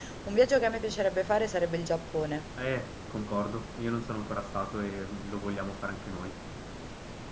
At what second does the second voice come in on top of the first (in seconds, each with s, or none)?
none